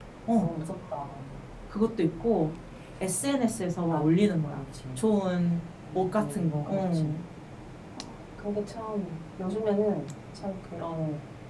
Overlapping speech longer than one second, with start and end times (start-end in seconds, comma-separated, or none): 6.0-7.2